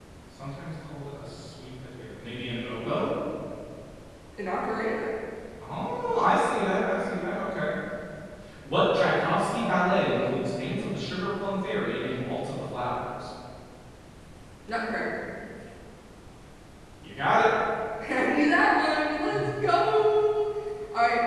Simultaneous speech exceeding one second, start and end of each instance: none

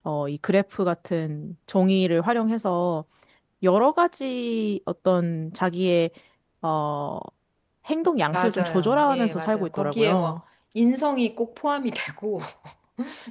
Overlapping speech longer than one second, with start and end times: 8.3-10.4

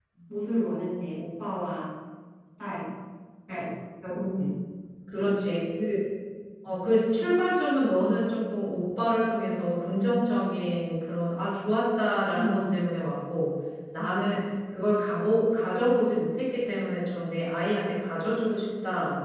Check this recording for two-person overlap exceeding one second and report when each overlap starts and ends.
none

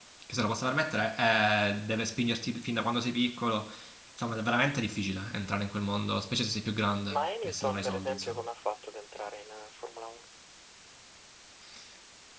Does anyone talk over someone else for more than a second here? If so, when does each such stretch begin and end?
7.1-8.4

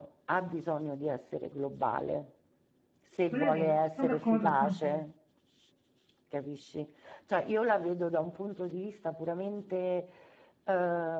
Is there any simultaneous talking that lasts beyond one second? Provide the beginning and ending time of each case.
3.3-5.0

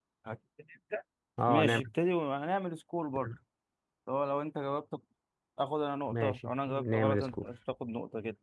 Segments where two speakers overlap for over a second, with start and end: 6.1-7.5

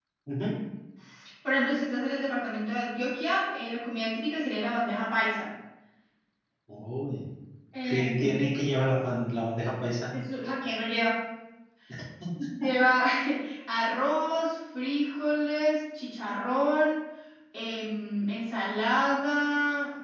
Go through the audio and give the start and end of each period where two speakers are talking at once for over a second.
none

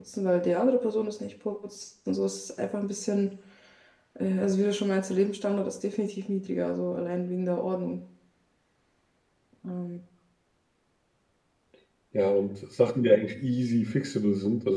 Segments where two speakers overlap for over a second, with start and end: none

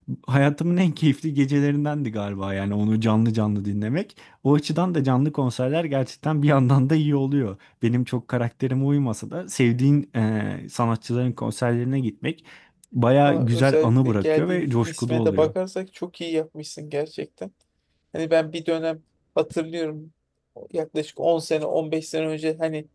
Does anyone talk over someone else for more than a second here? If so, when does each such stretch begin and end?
13.3-15.5

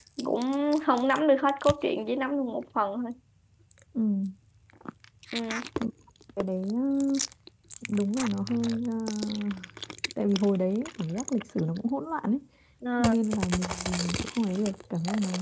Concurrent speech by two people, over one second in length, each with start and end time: none

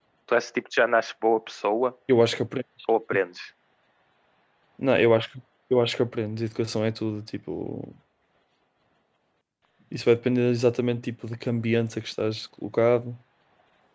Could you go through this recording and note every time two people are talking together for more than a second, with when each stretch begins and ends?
none

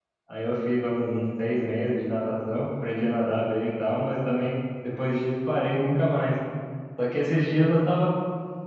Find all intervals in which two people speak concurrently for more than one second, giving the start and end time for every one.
none

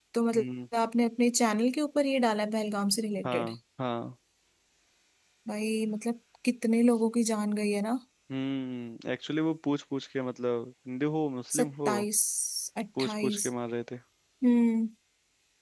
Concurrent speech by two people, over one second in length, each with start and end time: none

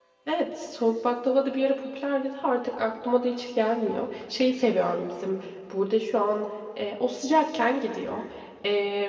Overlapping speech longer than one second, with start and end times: none

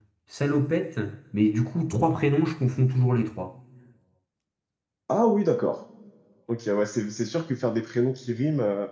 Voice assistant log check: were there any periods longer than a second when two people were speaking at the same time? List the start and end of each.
none

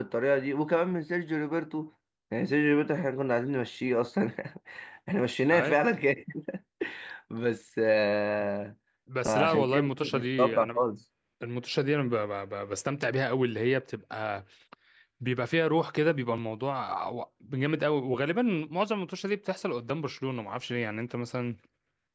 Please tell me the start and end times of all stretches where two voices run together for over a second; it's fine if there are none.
9.2-10.8

